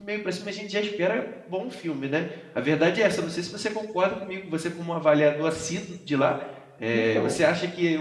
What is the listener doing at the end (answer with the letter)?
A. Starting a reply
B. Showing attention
B